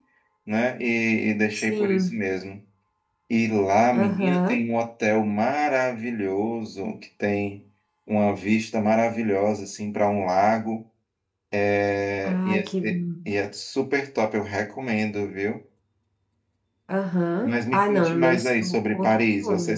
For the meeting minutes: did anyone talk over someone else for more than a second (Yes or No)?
Yes